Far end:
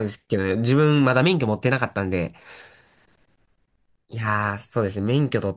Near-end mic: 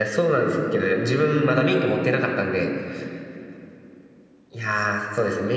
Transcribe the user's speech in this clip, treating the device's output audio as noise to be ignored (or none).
none